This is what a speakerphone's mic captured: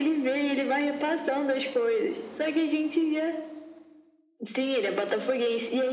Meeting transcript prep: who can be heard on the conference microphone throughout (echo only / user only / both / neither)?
echo only